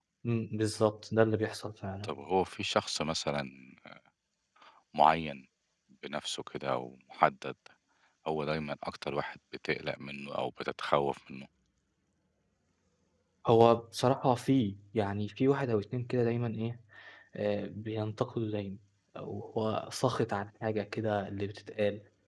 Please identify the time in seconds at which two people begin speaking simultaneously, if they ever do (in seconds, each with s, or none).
none